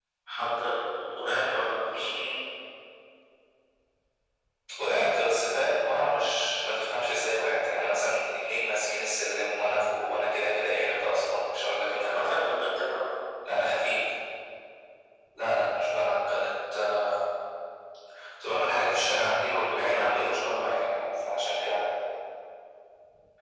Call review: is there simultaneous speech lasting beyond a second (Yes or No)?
Yes